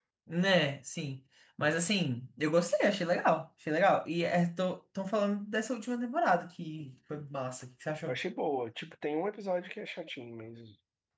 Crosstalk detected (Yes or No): No